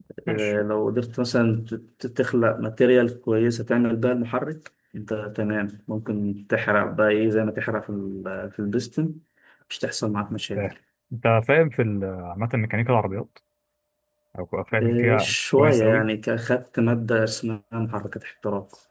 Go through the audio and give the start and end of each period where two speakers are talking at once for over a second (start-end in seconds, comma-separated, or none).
14.8-16.1